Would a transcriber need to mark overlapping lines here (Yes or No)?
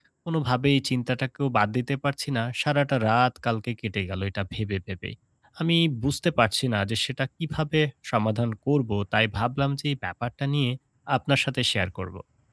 No